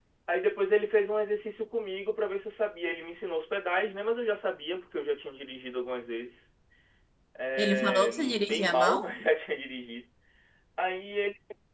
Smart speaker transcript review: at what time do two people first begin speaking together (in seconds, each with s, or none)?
7.6 s